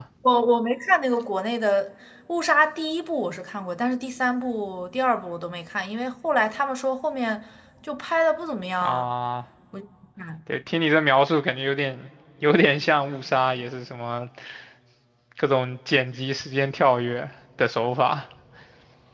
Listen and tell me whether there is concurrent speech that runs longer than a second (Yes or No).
No